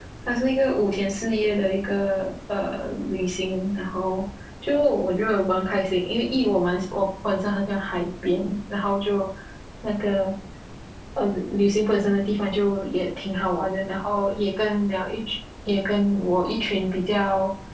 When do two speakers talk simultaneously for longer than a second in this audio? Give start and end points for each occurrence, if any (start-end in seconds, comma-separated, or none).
none